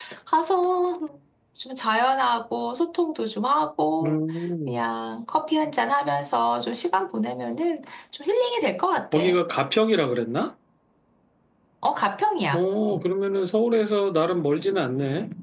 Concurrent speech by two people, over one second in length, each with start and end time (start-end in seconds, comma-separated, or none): none